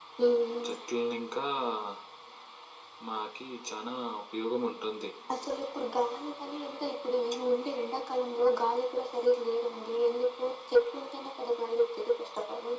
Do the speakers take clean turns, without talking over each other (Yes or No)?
Yes